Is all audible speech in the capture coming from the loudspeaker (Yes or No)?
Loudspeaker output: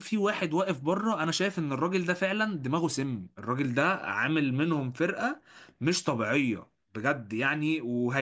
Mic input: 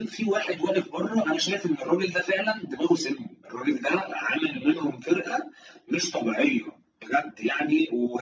Yes